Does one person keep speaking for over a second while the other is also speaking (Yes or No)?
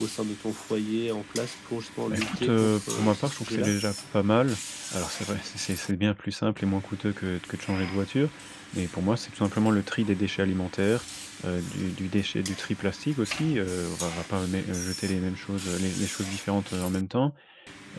Yes